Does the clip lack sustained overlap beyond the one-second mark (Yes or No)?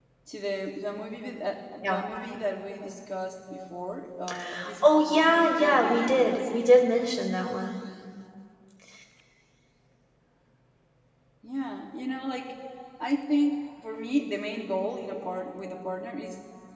No